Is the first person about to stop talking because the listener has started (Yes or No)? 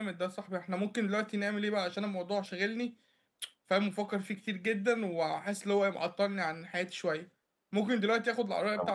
No